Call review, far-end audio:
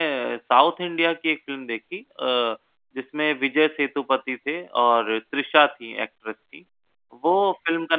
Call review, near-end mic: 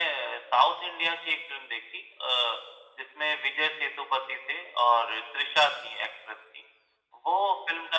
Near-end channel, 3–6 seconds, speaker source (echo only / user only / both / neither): echo only